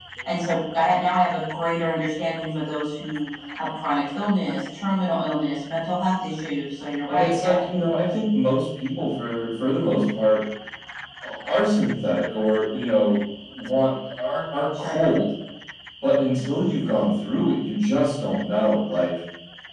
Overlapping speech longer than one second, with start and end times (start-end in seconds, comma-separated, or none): none